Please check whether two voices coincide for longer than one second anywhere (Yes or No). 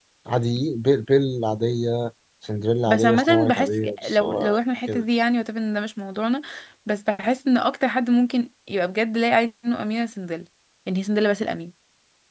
Yes